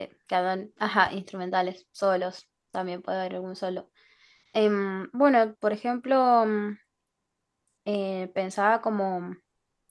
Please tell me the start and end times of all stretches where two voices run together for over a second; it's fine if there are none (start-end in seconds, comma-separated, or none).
none